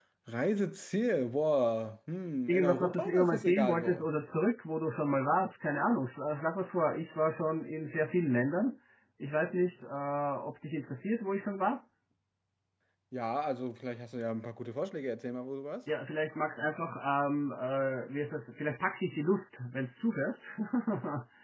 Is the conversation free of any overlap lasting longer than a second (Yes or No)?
No